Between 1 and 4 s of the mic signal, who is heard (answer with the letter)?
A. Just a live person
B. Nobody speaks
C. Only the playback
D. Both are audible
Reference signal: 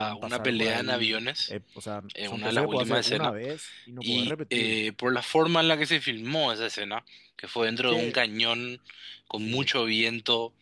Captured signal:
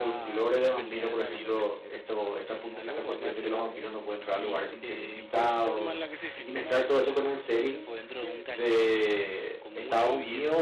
D